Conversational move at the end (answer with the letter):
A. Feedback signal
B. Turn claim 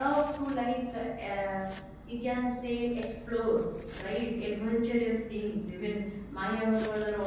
A